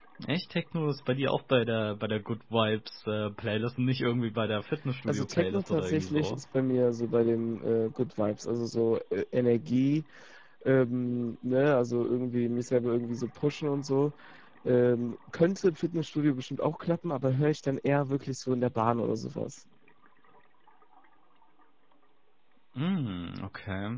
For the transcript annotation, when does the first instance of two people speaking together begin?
5 s

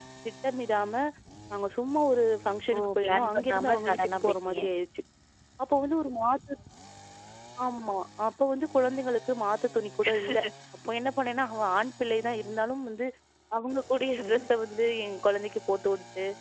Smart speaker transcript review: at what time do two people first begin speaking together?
3 s

